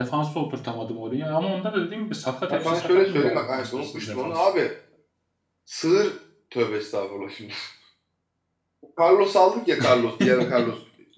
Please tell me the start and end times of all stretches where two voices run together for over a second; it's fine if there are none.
2.5-4.4

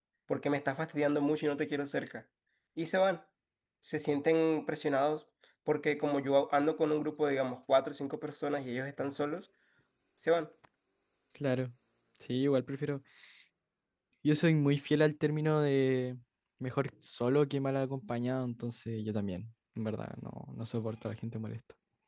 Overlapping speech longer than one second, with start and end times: none

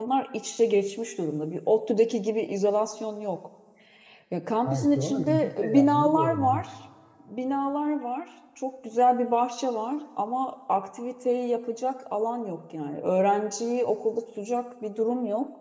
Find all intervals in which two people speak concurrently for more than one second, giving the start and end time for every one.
4.7-6.6

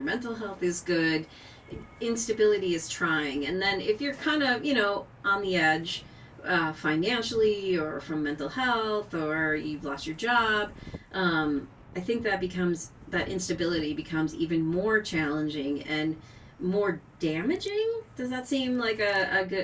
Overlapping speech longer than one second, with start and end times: none

